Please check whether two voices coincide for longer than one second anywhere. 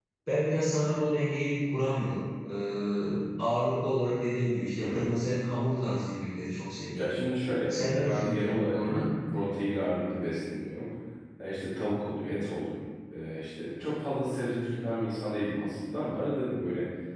Yes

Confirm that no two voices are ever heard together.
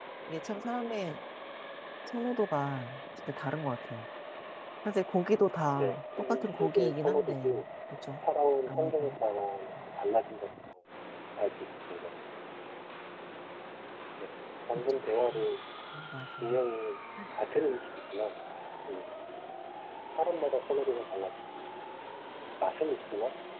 No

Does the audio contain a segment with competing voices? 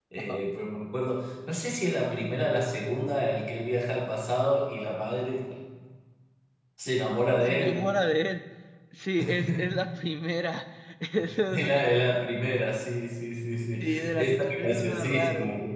Yes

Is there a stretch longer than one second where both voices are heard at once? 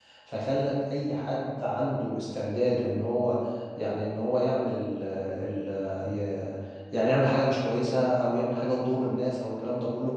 No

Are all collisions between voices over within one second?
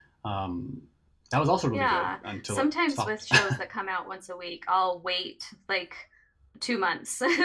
No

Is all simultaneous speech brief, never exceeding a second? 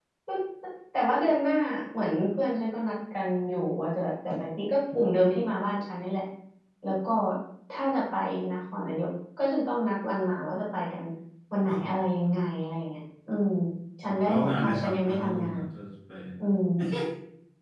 No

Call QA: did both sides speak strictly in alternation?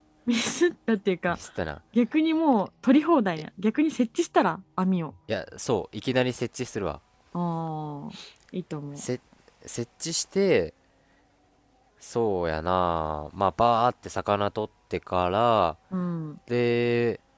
Yes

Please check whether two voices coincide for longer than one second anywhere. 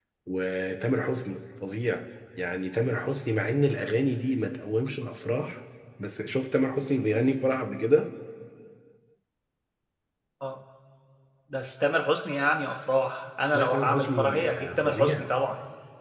Yes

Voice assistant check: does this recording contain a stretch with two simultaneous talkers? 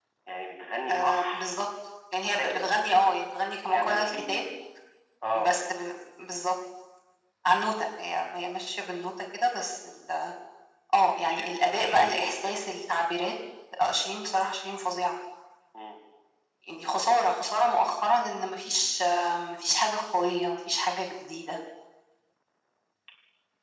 Yes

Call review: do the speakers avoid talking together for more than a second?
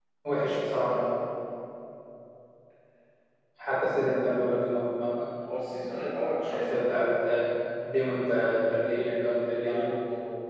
Yes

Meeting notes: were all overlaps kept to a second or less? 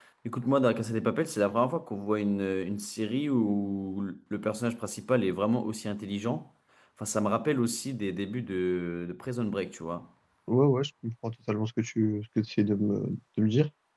Yes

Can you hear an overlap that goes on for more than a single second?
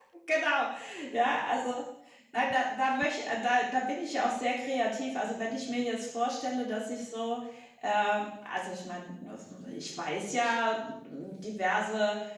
No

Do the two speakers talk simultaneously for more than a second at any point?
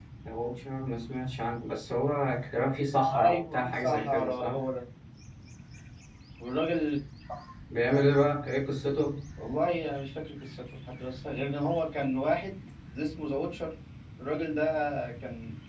Yes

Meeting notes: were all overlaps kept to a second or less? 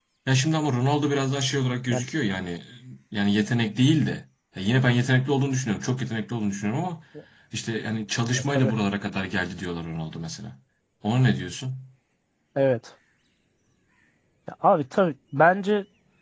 Yes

